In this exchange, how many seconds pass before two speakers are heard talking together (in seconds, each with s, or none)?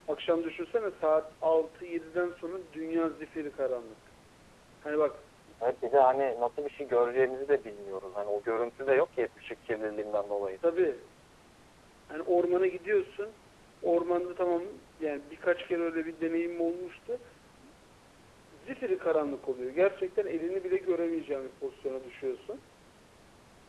none